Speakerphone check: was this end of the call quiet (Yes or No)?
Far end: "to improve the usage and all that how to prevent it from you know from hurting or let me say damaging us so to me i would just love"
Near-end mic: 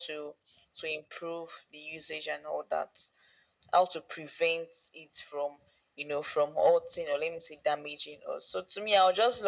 Yes